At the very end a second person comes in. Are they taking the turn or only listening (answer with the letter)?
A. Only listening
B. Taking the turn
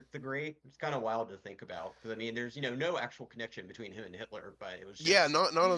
B